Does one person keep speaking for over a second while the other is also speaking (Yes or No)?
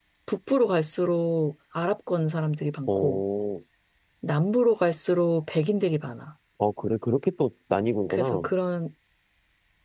No